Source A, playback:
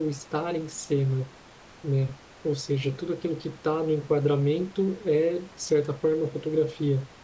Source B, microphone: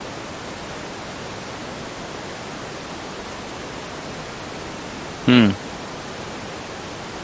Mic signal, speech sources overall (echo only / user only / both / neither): user only